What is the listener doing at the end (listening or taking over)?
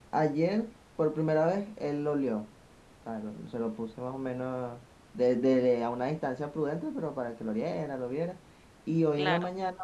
listening